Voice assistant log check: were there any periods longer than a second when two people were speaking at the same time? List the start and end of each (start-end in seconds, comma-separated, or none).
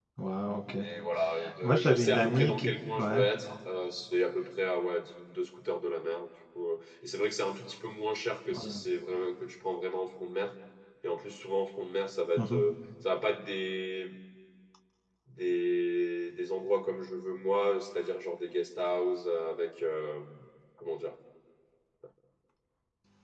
1.6-3.2